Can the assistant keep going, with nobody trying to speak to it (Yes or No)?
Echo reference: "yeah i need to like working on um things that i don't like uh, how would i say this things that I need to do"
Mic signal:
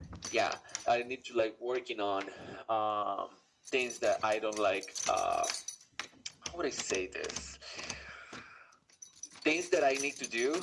Yes